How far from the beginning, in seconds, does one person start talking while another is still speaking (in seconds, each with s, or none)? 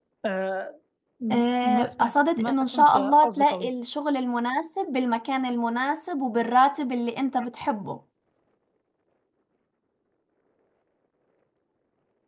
1.3 s